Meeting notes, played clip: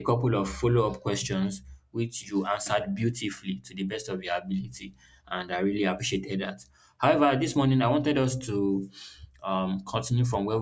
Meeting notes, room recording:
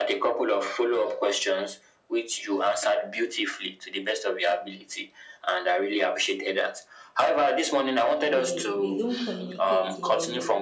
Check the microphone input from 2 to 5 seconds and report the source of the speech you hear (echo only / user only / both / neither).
echo only